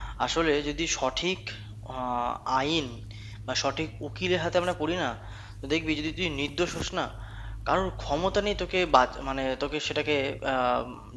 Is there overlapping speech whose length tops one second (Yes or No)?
No